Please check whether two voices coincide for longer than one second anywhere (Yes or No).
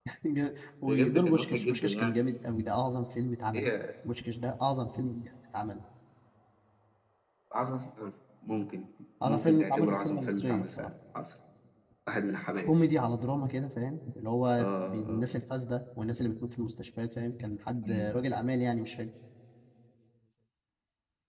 Yes